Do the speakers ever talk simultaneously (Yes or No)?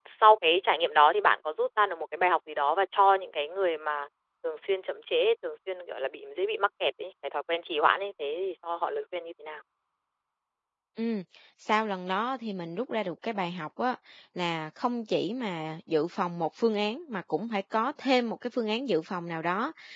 No